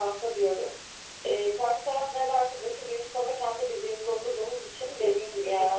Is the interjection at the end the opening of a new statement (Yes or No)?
Yes